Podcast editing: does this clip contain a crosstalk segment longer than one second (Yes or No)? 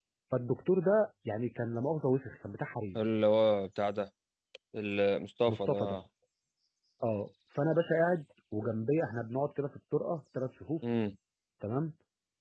No